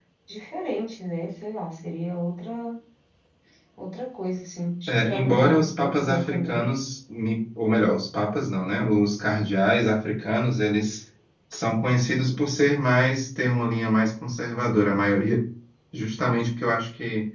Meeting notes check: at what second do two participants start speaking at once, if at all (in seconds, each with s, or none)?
4.9 s